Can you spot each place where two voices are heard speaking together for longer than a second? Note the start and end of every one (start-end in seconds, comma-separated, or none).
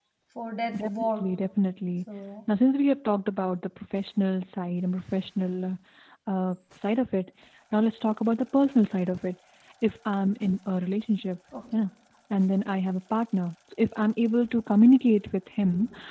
none